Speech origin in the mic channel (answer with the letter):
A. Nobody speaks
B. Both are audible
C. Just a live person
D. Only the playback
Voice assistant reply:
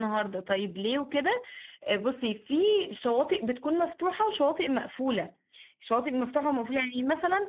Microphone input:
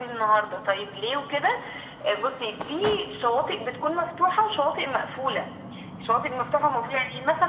D